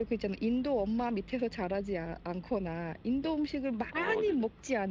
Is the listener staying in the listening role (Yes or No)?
Yes